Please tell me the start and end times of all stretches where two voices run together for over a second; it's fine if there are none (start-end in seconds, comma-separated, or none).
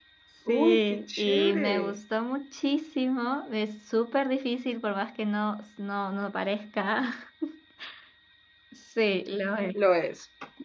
0.5-1.7